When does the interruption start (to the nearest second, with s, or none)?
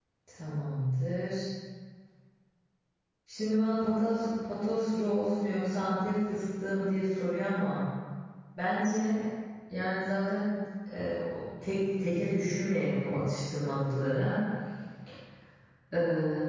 none